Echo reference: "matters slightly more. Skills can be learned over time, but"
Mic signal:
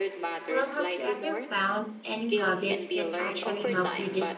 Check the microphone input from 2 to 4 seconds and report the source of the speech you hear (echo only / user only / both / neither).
both